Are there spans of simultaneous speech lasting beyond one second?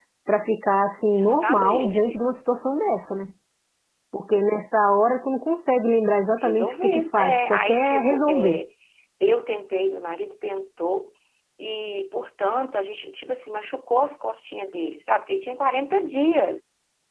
Yes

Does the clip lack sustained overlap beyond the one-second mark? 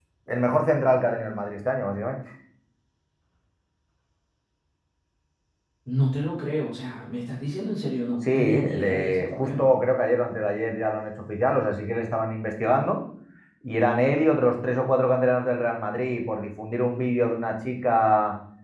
No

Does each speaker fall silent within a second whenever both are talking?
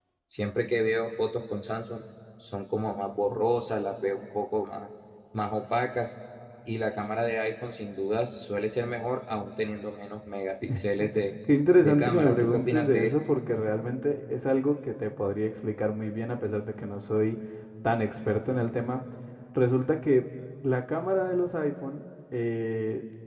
No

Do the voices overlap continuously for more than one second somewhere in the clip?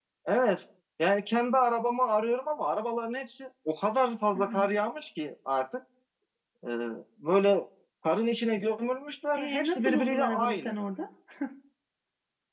Yes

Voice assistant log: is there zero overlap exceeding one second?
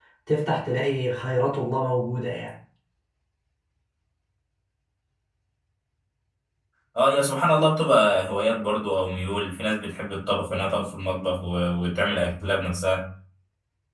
Yes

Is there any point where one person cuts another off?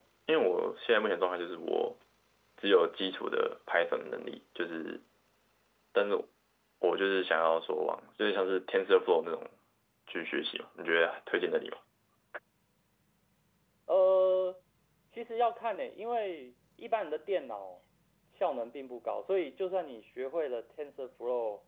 No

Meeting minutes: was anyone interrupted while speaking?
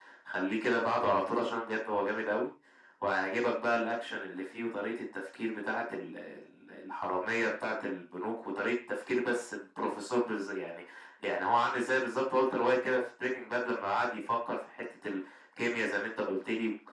No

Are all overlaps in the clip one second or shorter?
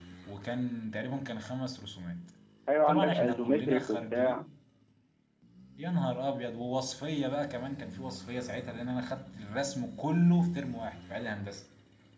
No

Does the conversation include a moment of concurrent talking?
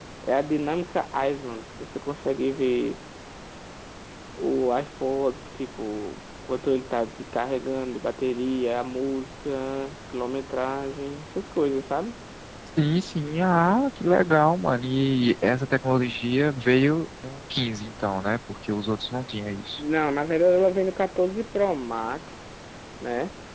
No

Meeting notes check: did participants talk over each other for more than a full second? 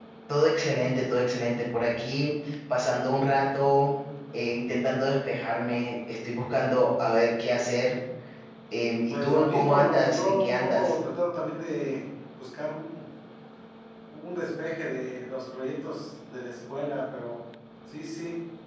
Yes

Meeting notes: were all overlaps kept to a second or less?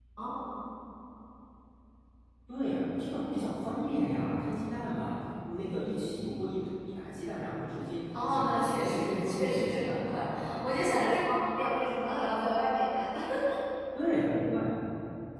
No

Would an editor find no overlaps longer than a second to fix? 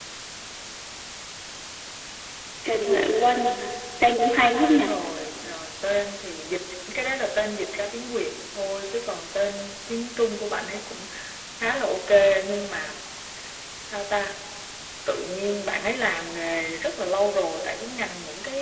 Yes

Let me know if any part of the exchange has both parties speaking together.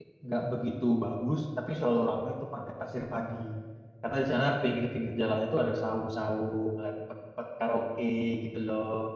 No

